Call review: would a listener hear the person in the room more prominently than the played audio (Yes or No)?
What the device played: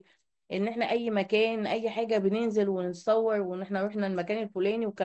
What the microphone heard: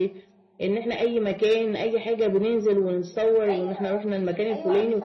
No